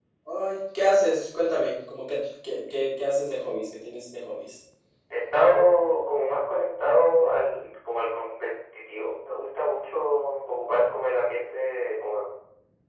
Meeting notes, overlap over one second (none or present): none